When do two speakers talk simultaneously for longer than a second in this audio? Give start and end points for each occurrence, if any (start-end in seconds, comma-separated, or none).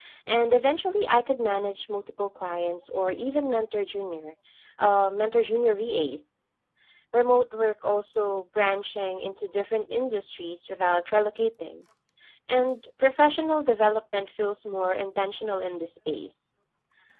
none